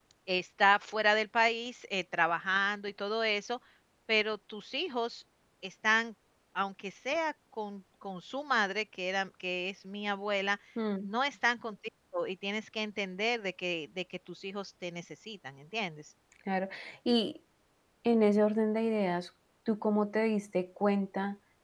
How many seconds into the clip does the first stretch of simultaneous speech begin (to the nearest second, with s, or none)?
none